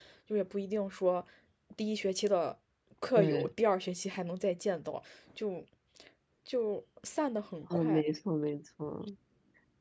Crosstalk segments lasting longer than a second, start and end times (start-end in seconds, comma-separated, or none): none